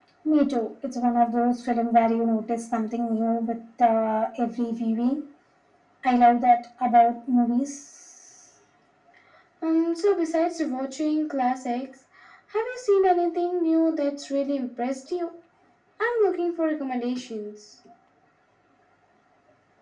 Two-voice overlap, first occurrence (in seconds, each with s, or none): none